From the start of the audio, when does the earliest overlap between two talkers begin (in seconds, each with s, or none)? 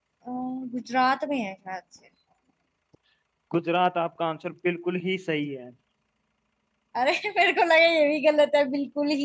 none